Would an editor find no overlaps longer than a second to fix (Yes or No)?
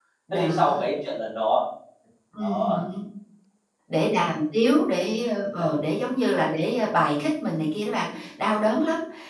Yes